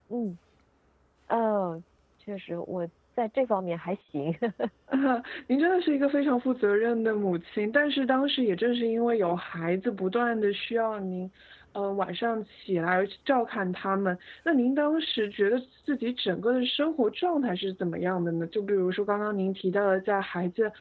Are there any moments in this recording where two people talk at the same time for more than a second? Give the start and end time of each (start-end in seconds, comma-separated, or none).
none